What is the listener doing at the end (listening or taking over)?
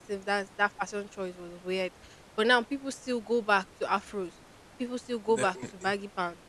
listening